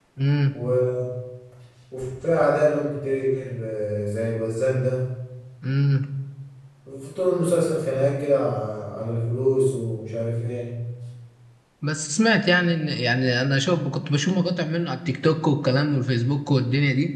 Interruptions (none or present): none